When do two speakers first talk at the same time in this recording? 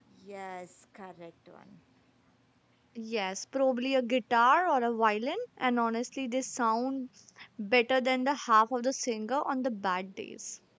none

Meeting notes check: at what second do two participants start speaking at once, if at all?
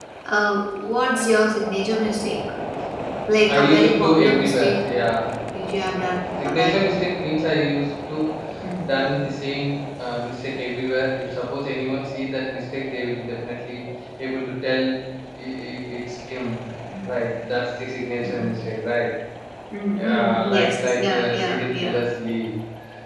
3.5 s

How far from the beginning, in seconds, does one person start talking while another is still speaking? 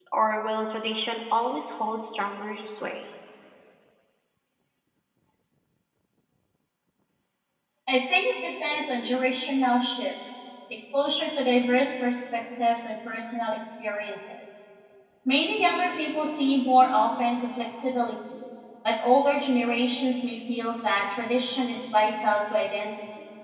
none

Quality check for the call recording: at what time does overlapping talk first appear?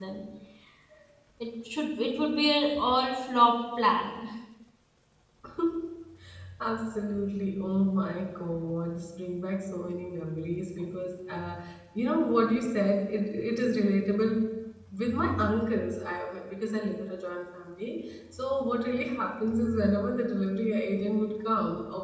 none

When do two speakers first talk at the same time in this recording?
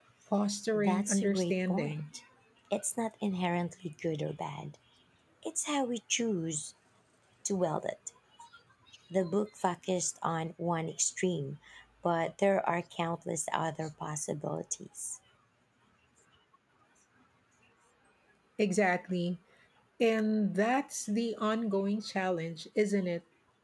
0.7 s

